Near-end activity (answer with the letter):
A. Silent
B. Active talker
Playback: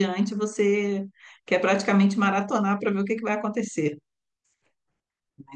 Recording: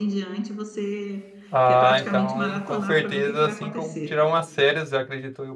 B